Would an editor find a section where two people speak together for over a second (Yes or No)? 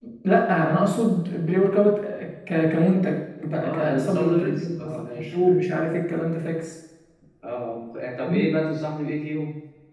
Yes